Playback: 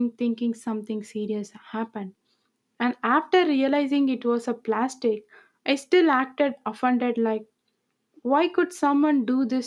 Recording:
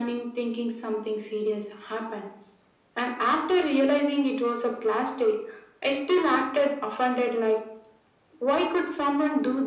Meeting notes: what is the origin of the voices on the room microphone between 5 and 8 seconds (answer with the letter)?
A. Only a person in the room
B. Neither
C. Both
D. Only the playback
D